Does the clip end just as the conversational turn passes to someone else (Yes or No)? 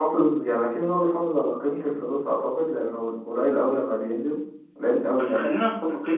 Yes